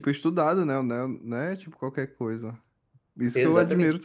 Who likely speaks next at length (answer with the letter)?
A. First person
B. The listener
A